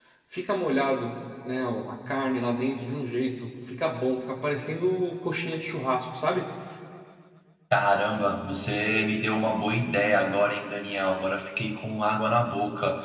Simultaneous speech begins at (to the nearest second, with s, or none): none